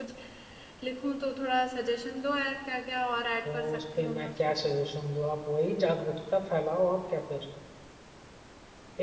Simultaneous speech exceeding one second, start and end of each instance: 3.5-4.7

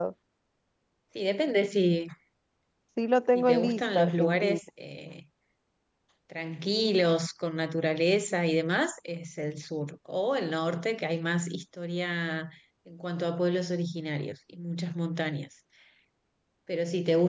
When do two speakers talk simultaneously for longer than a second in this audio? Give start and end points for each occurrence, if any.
3.4-4.6

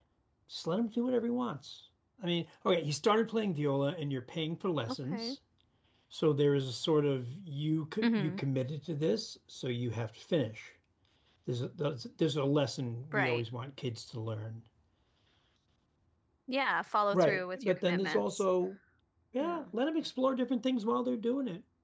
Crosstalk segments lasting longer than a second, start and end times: 17.1-18.4

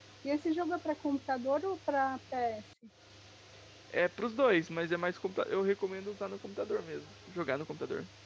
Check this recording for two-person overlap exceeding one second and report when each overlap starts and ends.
none

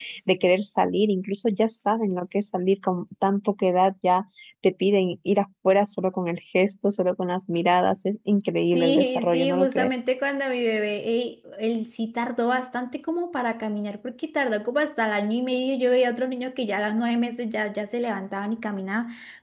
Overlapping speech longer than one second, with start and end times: 8.7-9.9

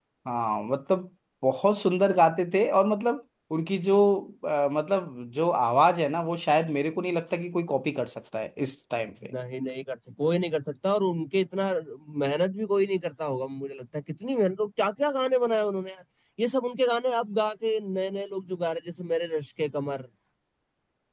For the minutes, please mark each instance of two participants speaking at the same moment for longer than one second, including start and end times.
none

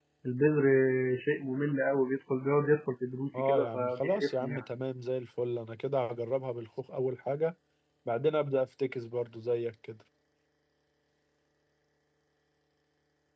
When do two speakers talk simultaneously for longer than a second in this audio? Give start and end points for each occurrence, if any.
3.4-4.6

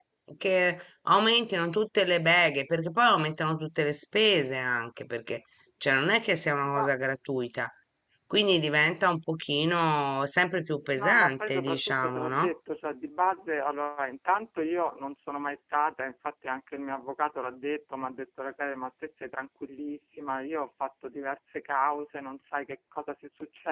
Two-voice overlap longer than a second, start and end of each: 11.0-12.5

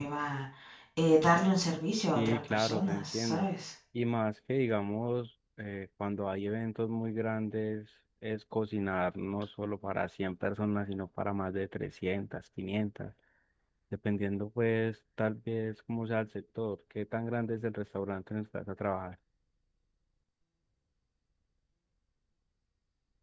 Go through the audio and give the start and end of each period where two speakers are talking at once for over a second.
2.1-3.5

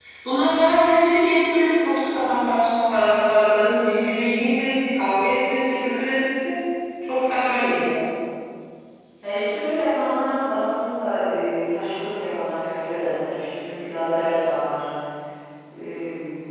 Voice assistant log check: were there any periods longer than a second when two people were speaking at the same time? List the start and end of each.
none

